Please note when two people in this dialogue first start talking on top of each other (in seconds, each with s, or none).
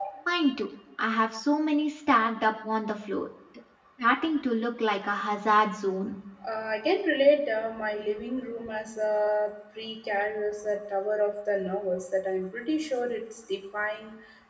none